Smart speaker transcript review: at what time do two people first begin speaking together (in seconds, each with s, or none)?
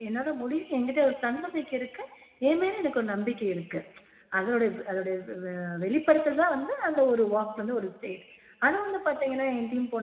none